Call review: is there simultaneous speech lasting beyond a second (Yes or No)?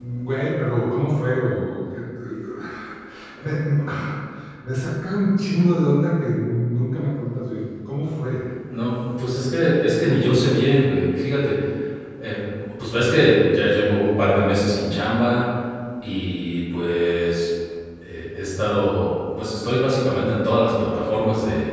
No